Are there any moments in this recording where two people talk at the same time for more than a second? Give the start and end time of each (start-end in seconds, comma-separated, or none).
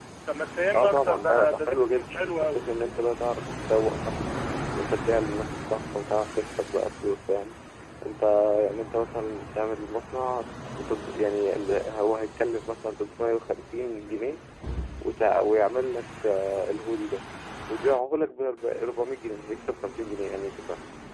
0.7-2.6